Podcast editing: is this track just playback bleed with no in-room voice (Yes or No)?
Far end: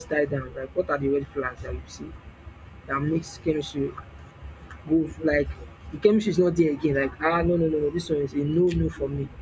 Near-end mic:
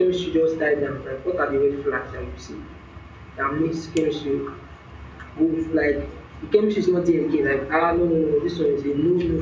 Yes